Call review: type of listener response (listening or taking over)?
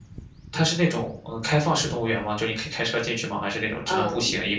taking over